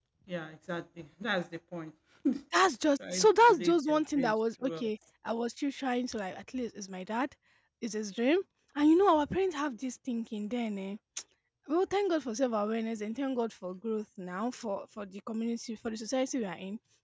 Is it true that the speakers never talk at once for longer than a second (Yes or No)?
No